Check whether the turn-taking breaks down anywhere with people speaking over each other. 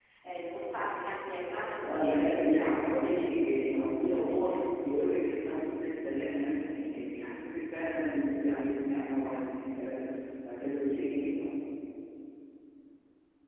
Yes, from 1.8 s

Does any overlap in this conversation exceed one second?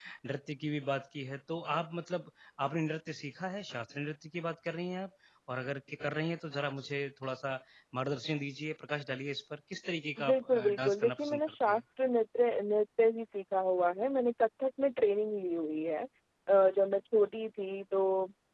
Yes, from 10.2 s

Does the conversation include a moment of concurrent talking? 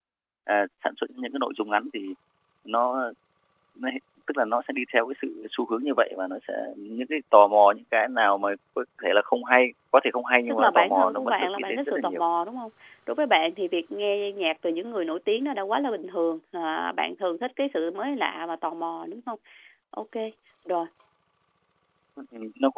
Yes, from 10.5 s

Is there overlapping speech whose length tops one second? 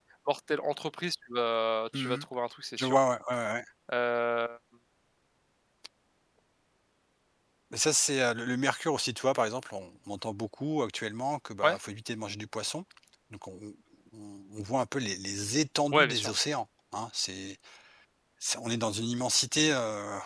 No

